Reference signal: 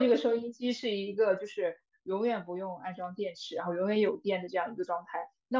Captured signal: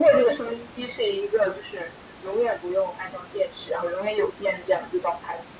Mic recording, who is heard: echo only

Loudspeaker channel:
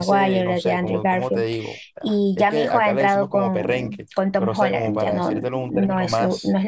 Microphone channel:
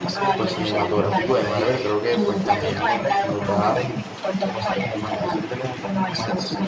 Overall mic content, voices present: both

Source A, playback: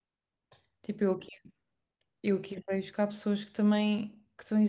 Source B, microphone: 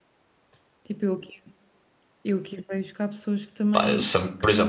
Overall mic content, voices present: both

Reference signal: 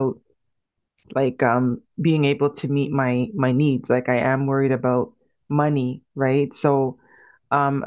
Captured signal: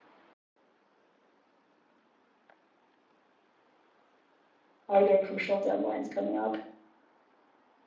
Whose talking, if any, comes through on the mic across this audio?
user only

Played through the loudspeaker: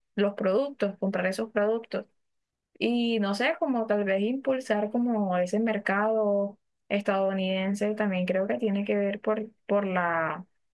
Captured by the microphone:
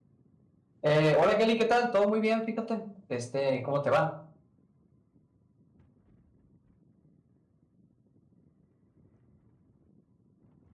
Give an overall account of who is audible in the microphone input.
user only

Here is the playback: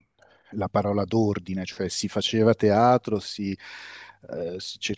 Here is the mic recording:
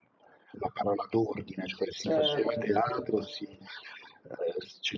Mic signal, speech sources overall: both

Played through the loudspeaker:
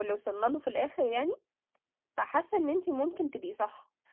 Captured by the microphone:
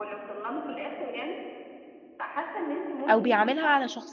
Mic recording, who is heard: both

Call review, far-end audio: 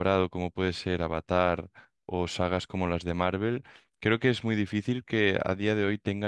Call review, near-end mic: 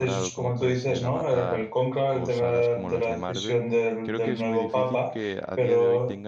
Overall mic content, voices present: both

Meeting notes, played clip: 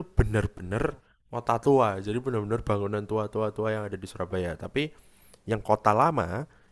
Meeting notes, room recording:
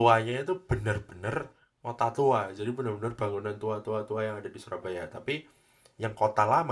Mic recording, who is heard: echo only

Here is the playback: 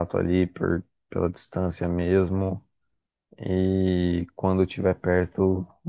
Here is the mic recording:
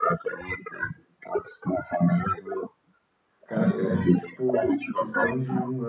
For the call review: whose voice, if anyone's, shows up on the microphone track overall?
both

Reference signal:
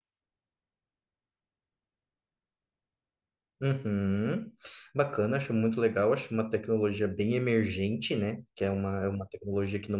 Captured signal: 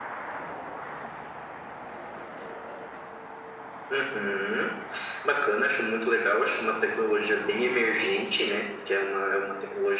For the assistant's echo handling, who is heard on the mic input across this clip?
echo only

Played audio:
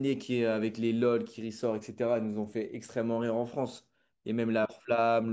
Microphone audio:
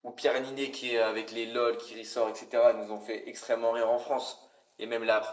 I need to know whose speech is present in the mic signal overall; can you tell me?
echo only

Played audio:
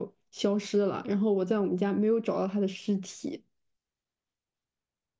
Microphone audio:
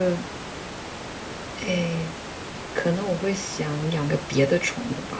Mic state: user only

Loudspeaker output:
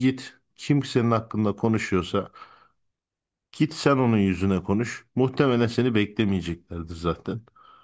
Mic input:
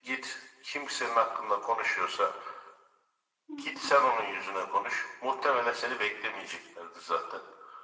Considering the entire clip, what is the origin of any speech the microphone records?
both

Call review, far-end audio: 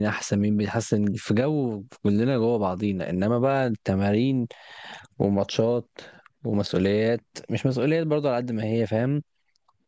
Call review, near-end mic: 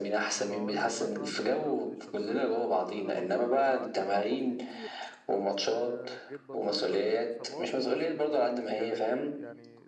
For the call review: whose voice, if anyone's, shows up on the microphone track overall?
both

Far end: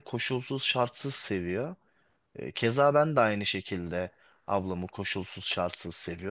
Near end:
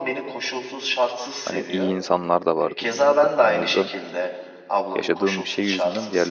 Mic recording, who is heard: both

